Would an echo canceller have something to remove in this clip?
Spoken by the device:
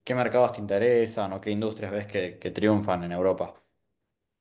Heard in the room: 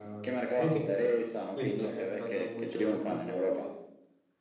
Yes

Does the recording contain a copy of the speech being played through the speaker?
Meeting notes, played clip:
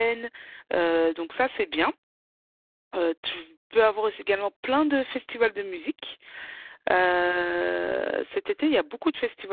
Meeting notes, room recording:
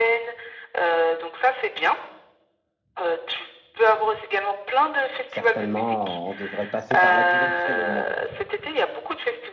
Yes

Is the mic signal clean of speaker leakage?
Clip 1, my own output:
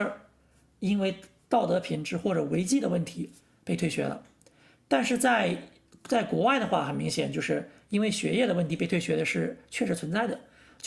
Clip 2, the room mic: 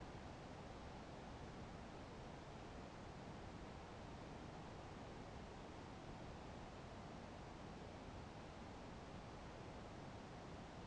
Yes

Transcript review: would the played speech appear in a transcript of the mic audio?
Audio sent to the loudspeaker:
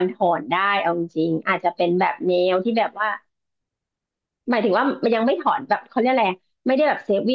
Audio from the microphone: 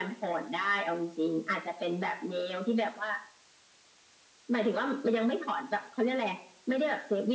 Yes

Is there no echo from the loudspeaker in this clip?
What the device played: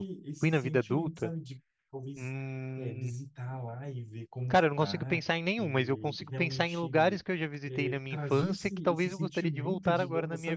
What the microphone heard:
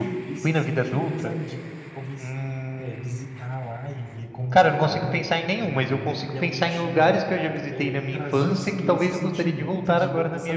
No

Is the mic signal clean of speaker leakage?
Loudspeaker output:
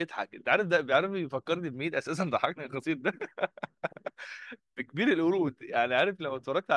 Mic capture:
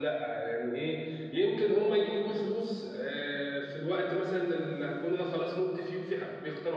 Yes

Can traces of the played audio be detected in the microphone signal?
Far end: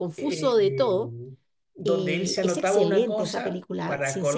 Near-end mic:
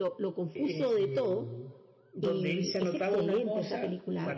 Yes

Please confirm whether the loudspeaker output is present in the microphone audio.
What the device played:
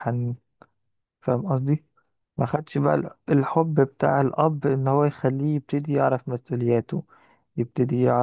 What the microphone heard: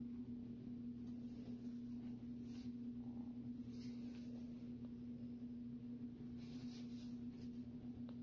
No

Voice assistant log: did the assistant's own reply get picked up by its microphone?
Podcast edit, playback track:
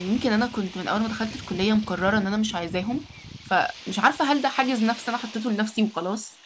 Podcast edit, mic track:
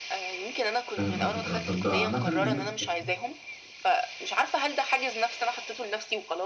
Yes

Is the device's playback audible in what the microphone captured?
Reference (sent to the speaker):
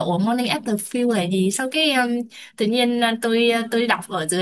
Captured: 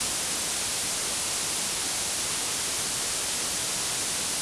No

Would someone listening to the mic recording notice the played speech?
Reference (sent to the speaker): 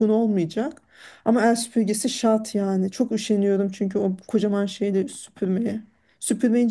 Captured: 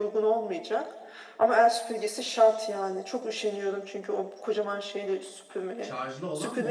Yes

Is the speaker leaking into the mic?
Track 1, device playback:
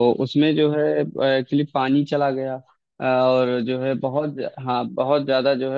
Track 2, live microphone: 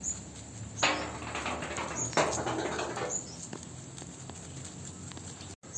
No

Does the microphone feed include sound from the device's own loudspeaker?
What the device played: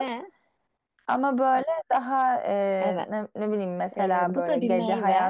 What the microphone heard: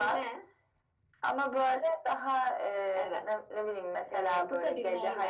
Yes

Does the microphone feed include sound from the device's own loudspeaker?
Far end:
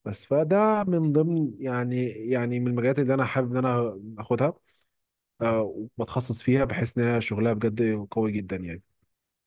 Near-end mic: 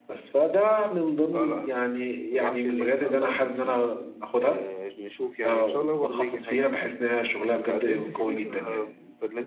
Yes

